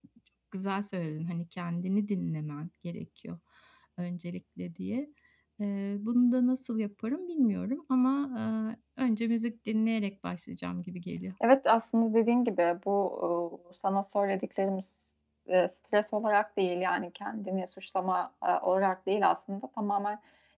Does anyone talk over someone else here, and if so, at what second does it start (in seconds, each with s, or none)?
none